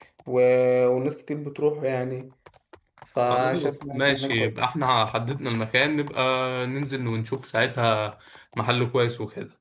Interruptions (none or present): present